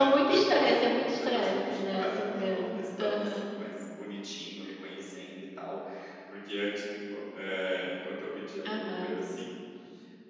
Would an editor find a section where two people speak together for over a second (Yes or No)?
Yes